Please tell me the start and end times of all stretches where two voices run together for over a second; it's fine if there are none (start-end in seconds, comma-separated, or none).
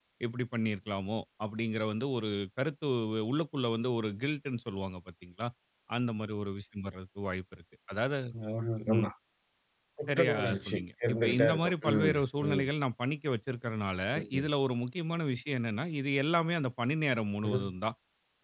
10.1-12.6